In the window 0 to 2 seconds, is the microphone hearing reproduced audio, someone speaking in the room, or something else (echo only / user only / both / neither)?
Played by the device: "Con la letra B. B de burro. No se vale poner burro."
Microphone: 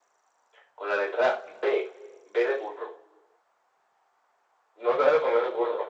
echo only